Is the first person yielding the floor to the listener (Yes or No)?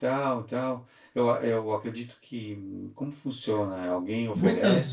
Yes